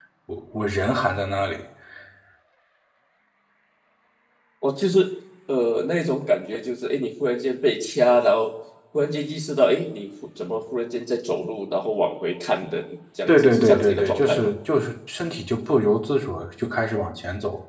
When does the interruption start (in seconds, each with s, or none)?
13.3 s